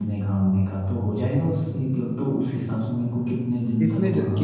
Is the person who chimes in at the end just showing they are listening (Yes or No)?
No